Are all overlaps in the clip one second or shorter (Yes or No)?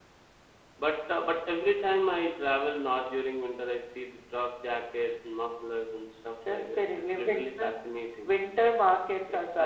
No